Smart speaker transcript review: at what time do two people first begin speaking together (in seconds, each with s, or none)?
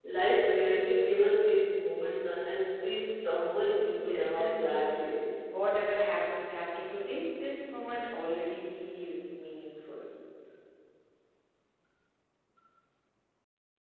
4.0 s